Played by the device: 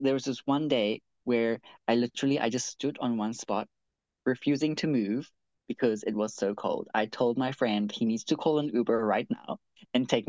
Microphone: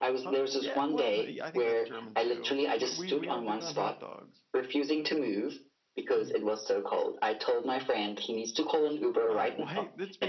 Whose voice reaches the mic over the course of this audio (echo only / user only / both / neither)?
both